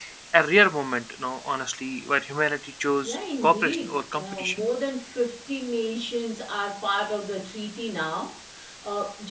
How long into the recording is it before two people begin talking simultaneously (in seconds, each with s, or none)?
3.0 s